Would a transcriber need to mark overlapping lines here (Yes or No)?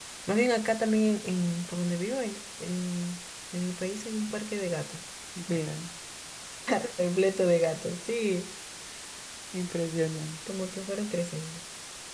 No